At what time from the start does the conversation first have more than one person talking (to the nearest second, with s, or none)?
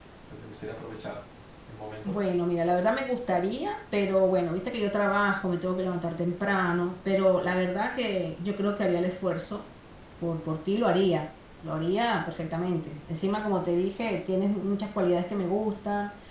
none